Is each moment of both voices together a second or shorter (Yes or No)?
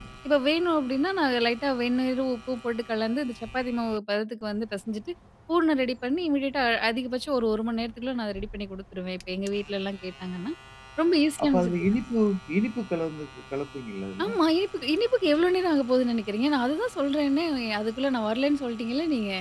Yes